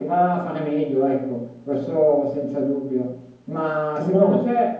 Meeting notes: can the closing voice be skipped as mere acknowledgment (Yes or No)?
Yes